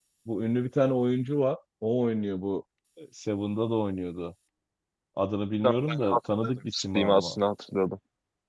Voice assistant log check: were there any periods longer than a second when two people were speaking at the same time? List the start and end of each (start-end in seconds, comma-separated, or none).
5.6-7.4